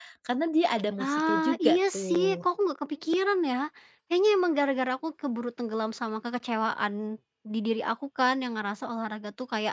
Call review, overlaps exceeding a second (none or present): present